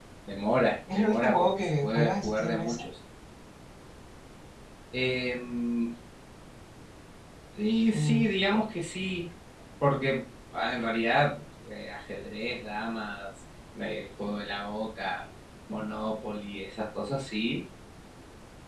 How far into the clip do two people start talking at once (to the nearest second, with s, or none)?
1 s